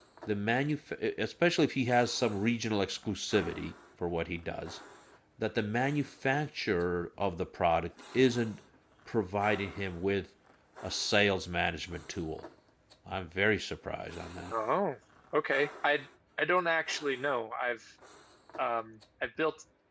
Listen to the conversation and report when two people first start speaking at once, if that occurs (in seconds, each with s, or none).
none